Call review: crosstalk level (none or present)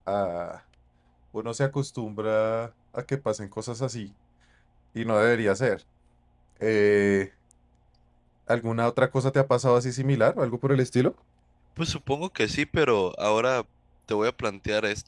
none